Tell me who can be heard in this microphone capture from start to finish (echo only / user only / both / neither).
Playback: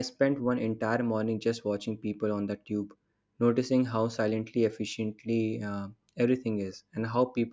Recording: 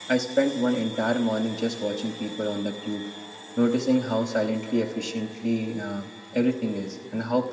echo only